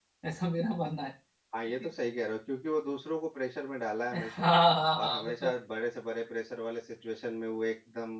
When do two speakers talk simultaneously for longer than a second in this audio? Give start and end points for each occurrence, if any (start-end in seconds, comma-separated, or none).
none